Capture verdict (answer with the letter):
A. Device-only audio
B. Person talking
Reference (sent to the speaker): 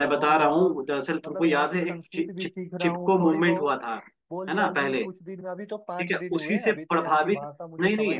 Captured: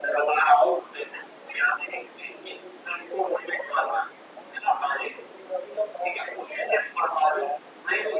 A